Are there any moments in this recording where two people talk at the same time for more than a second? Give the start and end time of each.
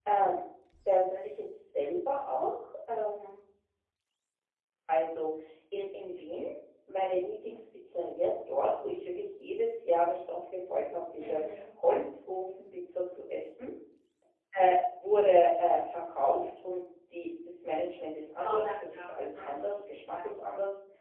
18.4-20.3

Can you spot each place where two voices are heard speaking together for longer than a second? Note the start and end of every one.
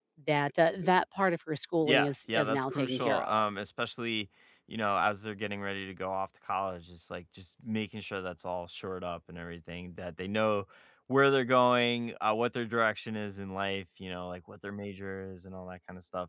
1.8-3.5

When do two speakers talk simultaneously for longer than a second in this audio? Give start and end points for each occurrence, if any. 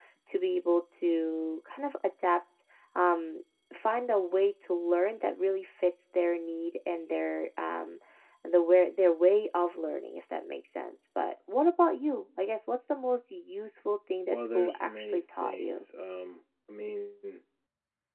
14.3-15.8

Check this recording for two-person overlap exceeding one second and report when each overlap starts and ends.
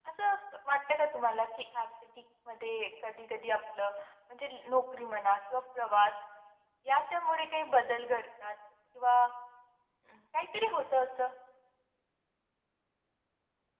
none

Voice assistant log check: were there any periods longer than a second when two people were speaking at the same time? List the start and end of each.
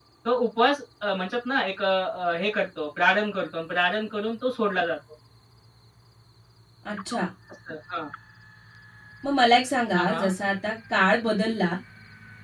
none

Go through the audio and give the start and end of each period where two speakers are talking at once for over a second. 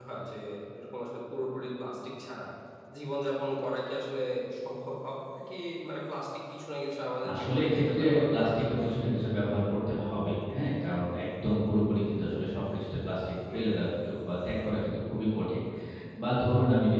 7.3-9.2

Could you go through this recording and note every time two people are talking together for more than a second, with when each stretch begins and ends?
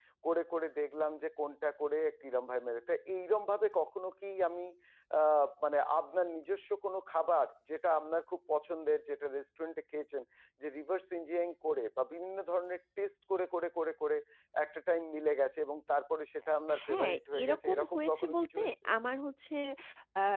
16.9-18.7

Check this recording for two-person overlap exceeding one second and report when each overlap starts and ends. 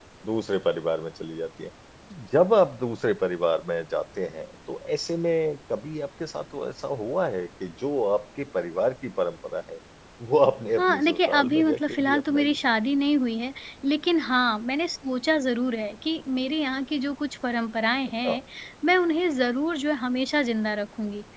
10.7-12.6

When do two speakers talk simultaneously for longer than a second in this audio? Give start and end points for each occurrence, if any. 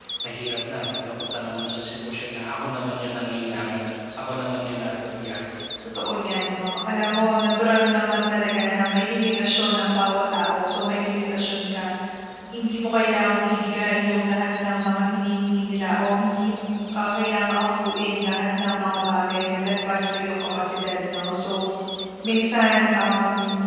none

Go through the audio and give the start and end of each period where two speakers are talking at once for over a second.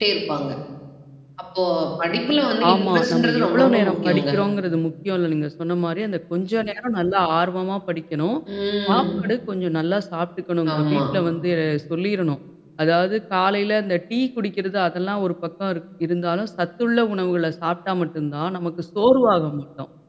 2.7-4.3

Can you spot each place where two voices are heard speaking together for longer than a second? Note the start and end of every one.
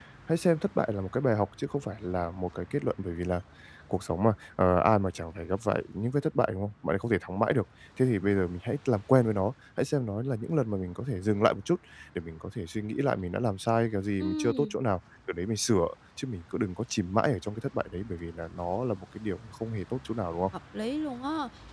none

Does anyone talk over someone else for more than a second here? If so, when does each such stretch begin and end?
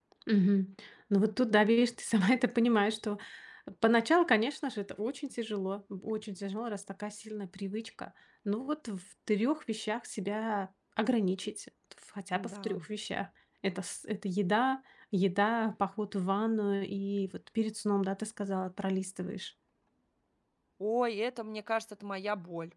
none

